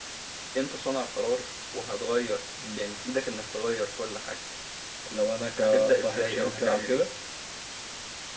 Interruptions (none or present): present